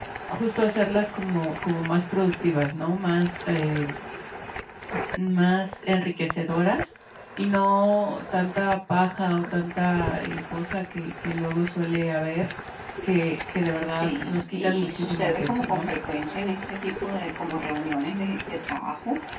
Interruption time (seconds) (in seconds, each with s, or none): 13.9 s